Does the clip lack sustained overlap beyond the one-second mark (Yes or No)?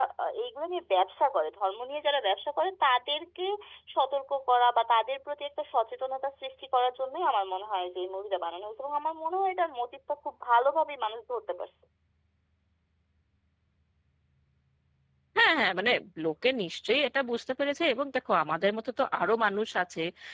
Yes